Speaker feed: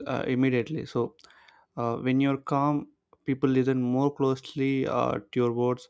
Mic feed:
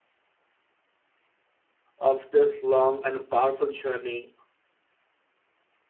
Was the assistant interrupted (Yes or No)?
Yes